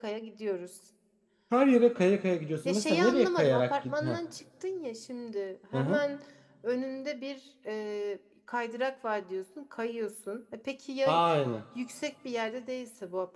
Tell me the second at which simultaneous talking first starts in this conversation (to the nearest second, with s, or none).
3 s